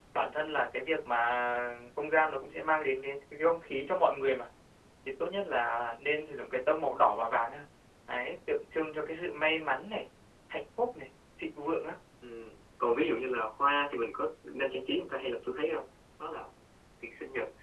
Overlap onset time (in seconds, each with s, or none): none